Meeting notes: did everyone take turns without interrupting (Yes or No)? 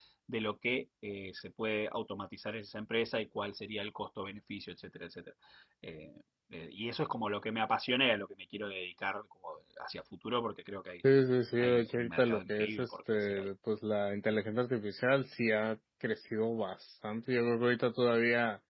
No